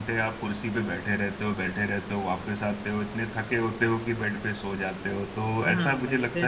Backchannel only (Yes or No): No